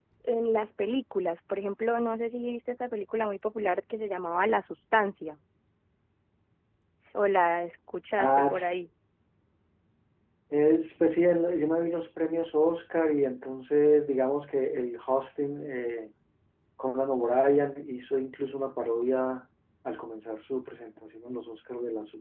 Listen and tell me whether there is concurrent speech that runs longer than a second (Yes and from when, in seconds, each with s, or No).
No